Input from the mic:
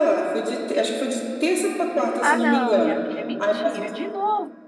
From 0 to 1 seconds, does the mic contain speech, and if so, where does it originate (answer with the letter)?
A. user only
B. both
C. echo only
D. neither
C